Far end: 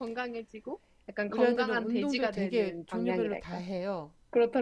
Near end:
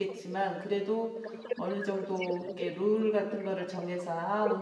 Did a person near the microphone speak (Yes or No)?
Yes